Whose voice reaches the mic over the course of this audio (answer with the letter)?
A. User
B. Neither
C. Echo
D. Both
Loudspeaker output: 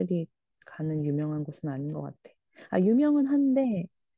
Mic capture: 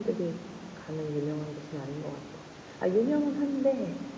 C